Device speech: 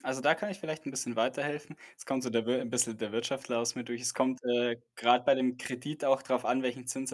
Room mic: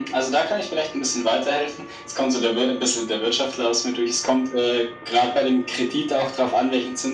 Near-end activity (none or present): none